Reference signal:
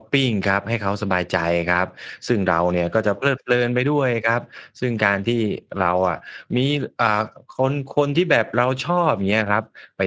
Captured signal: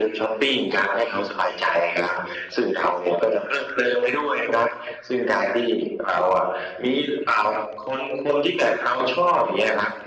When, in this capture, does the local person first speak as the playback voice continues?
none

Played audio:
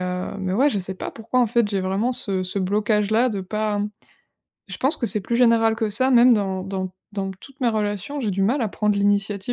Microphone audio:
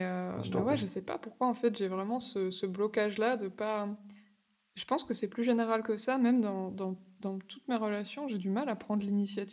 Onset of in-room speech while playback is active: 0 s

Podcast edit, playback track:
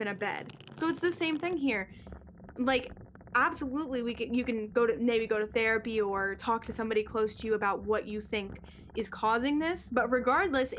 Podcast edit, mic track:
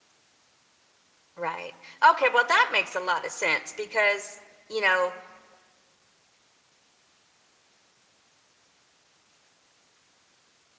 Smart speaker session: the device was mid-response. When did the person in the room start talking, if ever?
1 s

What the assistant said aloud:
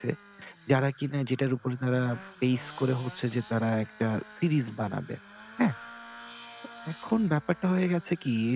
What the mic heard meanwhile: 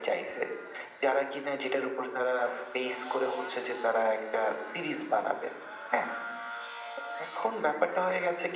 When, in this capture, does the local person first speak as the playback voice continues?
none

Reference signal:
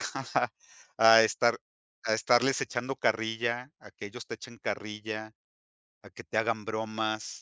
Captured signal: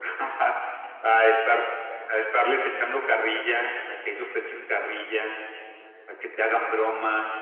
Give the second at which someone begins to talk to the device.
none

